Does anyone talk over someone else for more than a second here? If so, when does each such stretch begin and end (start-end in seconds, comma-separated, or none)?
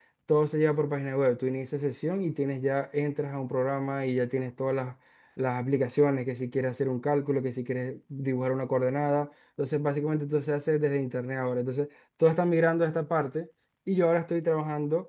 none